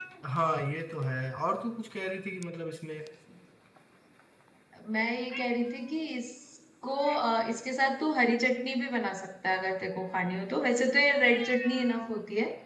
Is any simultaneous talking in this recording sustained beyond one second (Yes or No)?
No